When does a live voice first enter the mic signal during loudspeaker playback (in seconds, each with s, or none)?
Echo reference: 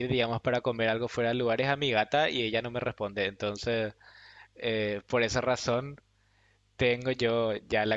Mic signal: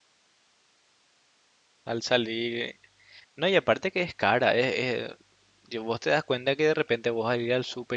1.9 s